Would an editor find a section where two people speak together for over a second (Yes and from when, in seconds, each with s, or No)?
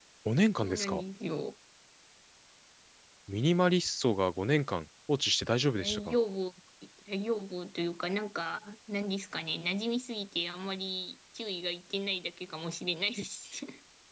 No